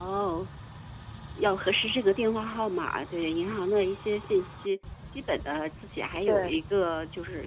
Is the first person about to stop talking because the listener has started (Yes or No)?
No